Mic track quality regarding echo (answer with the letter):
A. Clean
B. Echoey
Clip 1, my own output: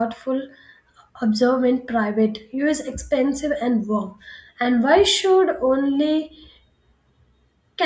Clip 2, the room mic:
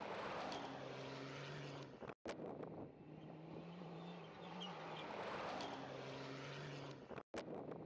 A